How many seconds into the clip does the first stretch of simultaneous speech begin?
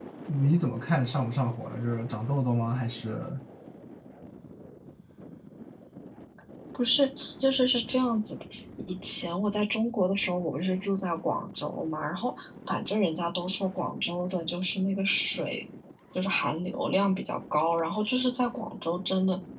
none

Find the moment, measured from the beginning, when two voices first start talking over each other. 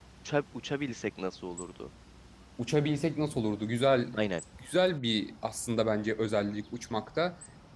none

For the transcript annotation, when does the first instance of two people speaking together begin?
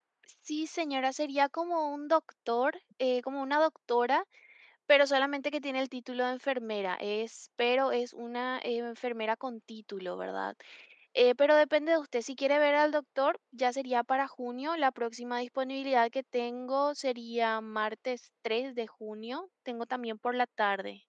none

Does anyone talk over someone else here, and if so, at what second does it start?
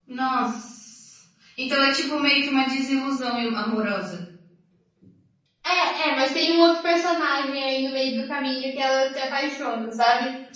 none

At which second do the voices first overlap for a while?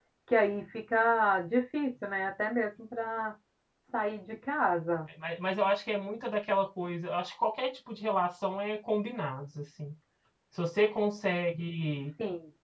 none

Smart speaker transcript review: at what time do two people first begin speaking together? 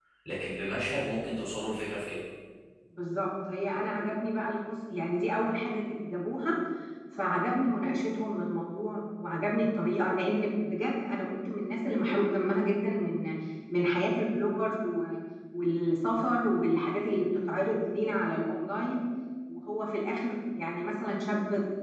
none

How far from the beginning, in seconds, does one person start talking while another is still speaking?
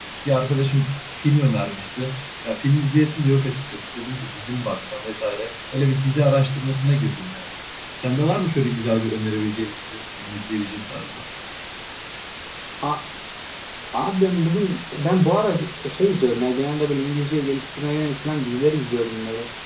none

